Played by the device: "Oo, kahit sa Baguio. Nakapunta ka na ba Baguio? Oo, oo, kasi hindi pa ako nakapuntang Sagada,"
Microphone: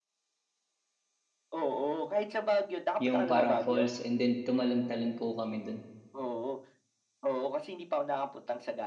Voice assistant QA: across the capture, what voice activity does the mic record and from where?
both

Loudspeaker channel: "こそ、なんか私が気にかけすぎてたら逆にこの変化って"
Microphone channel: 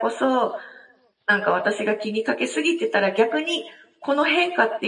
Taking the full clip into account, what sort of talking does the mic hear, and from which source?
echo only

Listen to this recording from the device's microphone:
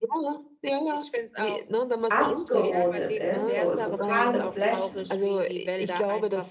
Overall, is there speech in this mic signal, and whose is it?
both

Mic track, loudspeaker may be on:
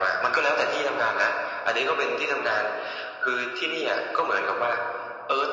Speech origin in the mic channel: echo only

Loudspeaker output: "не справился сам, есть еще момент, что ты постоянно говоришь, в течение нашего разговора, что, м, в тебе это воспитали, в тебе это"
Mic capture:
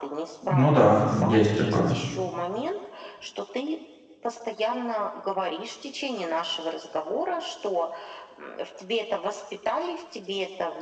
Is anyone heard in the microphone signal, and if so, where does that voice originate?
both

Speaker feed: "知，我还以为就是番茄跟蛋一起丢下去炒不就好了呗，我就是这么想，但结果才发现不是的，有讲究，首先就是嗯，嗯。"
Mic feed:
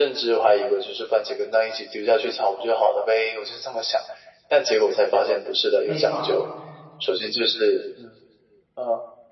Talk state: both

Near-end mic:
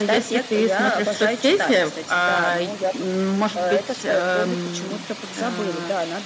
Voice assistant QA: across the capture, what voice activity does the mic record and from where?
echo only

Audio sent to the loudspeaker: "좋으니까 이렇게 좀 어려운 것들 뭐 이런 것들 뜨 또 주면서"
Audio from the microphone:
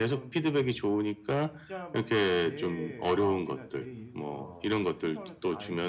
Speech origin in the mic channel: both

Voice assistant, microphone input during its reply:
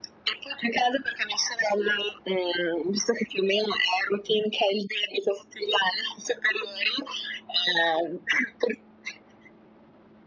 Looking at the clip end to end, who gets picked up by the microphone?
echo only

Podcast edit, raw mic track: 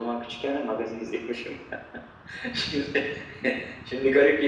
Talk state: echo only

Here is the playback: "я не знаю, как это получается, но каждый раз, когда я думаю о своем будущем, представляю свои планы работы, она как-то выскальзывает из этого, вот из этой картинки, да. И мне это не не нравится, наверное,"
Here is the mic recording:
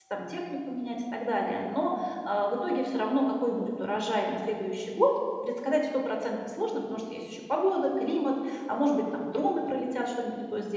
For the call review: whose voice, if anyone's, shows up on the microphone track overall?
user only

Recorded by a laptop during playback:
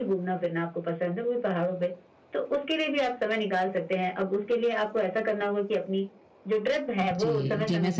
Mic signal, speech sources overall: both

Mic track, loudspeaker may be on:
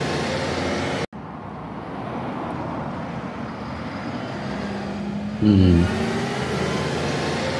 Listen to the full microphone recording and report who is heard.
user only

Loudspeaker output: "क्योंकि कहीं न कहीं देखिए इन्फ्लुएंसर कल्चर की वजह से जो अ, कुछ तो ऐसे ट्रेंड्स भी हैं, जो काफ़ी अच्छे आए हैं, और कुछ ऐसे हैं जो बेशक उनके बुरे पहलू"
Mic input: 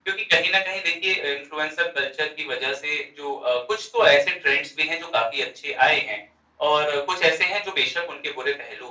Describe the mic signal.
echo only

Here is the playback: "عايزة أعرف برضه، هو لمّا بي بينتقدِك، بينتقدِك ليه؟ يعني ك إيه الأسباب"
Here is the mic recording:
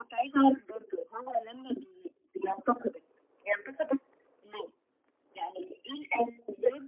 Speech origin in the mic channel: echo only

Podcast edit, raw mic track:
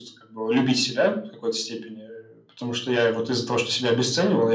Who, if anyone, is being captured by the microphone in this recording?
echo only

